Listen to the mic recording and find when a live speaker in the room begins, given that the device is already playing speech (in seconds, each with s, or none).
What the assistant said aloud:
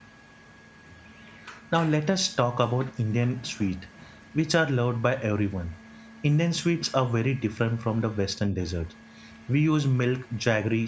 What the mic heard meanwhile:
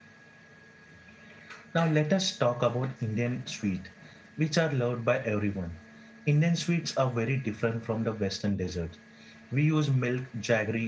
none